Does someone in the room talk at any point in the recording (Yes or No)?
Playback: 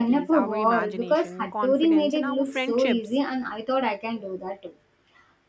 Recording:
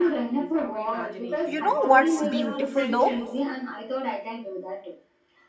Yes